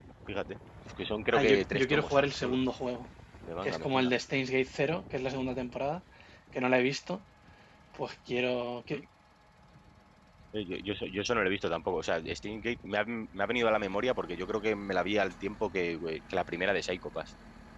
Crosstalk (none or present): present